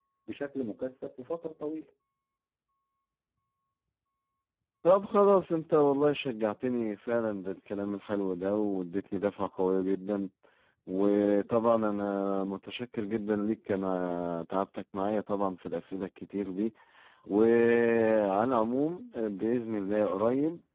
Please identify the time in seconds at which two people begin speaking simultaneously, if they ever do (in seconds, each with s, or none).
none